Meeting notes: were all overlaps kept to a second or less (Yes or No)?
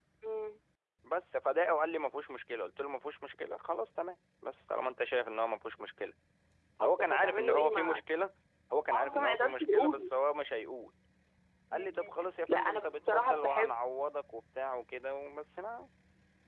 No